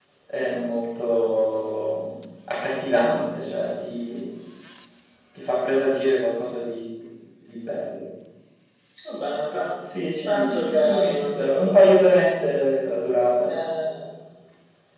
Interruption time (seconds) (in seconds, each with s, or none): 10.3 s